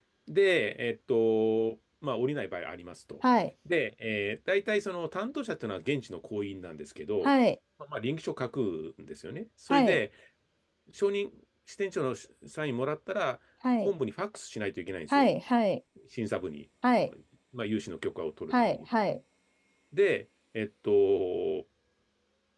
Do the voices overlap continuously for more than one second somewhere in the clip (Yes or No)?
No